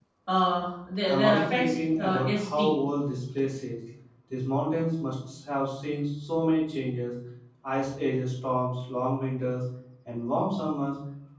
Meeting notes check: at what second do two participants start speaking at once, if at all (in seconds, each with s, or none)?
1.1 s